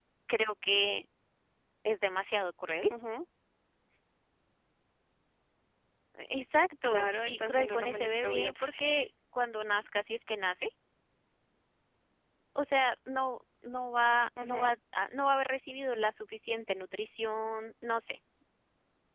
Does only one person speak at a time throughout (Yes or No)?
No